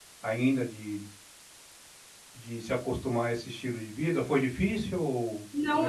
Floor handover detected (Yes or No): Yes